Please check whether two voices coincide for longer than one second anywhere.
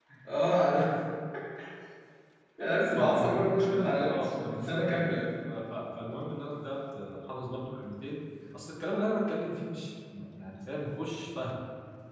Yes, from 2.9 s

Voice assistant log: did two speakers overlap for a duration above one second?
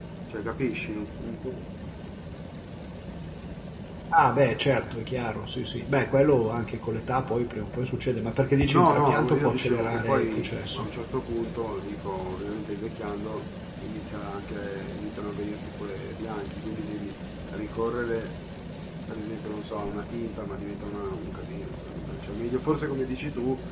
Yes, from 8.7 s

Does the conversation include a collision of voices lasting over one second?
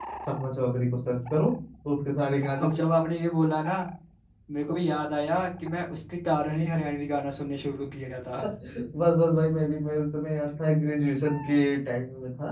No

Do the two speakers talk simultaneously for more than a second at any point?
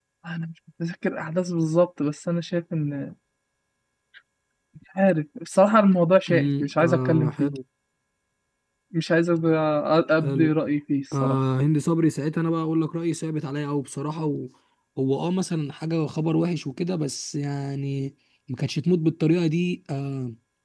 Yes, from 6.3 s

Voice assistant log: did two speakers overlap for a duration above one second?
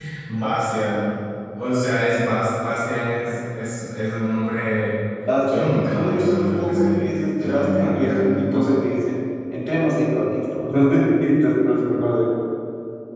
Yes, from 5.5 s

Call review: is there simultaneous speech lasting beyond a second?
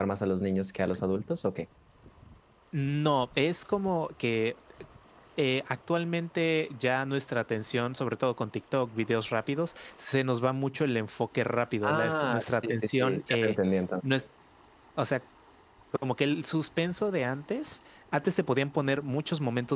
Yes, from 11.8 s

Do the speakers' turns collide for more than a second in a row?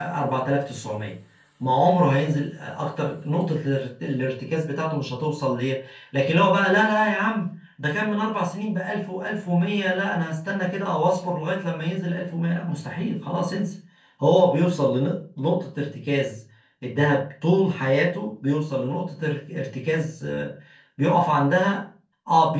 No

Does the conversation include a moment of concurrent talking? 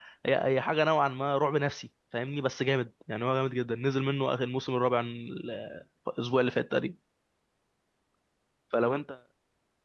No

